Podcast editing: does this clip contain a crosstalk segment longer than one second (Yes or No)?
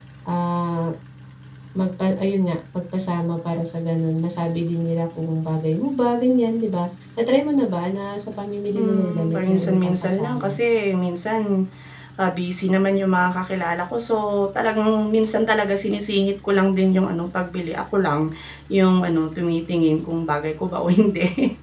Yes